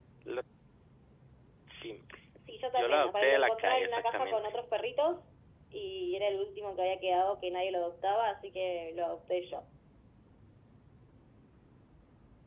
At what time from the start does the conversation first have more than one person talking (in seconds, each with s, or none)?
2.8 s